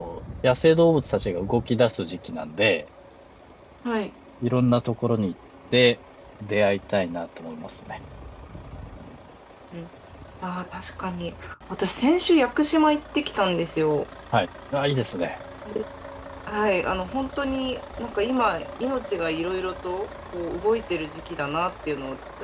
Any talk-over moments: No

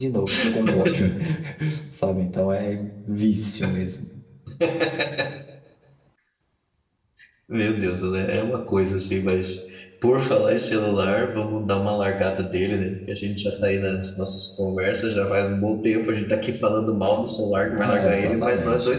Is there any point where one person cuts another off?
Yes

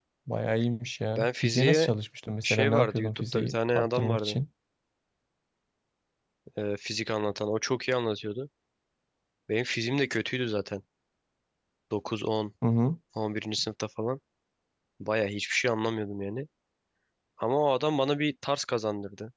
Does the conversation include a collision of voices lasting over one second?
Yes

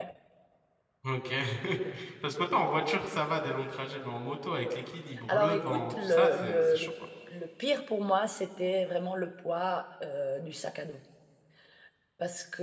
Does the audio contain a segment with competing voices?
Yes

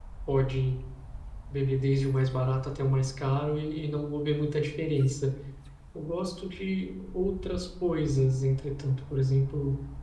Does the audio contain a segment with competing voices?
No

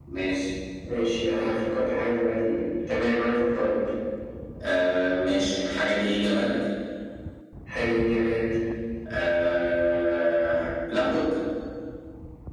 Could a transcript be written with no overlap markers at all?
Yes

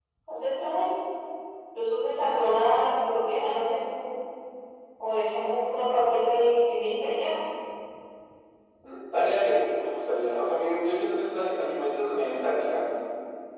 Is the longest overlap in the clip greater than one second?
No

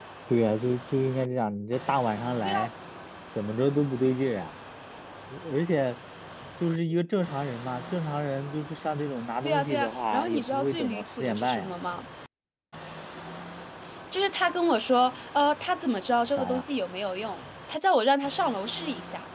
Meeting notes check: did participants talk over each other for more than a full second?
Yes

